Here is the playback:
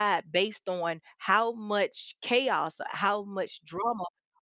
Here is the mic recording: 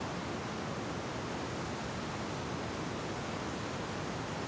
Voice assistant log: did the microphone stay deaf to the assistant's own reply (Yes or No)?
Yes